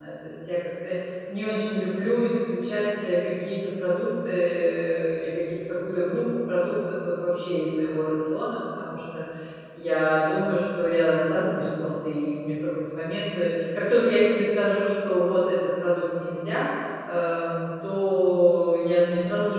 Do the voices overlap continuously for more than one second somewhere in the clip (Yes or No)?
No